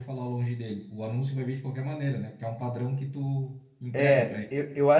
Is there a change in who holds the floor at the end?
Yes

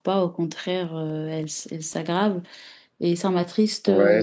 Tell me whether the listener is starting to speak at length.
Yes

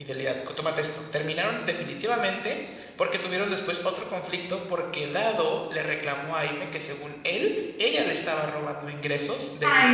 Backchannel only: No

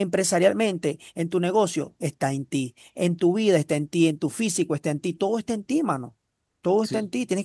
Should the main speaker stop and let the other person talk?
No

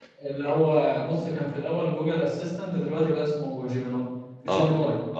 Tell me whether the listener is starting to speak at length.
Yes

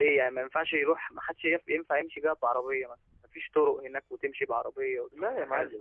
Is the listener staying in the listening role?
No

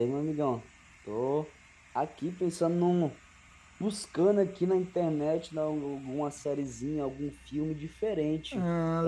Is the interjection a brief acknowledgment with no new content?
Yes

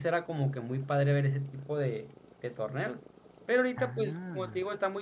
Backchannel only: Yes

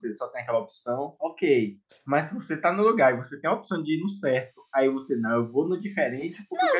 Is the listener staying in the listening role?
No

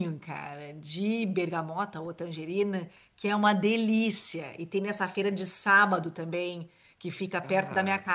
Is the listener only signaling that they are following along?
Yes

